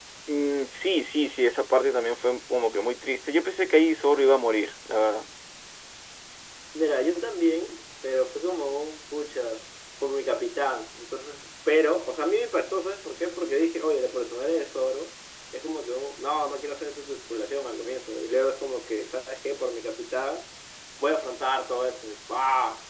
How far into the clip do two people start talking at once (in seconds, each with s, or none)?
none